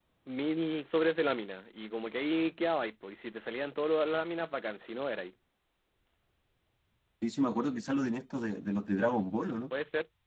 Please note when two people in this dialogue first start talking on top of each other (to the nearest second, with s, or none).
none